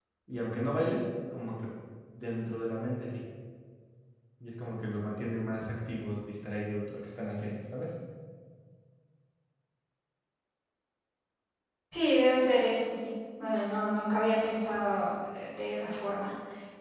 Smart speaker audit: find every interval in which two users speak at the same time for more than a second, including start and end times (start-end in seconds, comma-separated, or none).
none